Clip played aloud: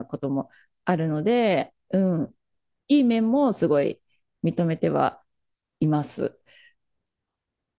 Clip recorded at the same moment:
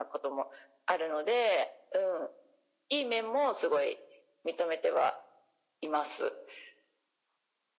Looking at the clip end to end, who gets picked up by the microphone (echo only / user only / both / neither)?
echo only